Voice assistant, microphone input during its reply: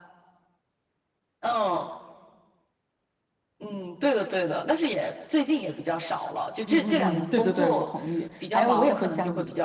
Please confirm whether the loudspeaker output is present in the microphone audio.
Yes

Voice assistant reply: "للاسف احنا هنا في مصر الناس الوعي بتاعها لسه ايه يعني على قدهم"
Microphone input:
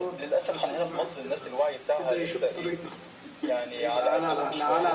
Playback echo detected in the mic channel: Yes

